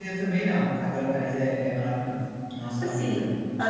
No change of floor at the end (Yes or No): No